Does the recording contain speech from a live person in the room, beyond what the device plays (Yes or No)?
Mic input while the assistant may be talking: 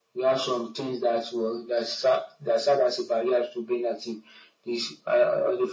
No